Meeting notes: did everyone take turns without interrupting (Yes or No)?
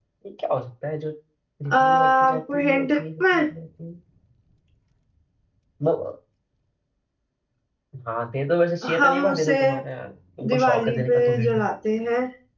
No